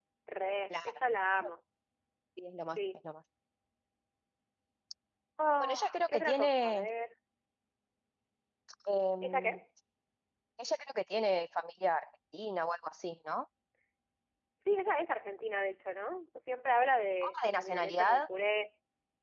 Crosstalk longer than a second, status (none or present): present